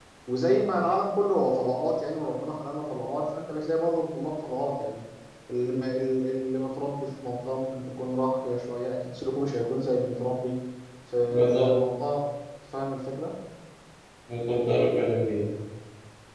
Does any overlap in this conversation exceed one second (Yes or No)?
No